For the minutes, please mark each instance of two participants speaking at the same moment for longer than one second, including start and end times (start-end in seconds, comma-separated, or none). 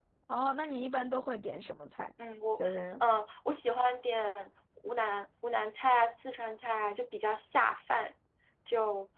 none